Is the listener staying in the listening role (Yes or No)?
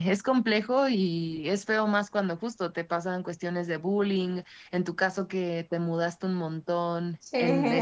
Yes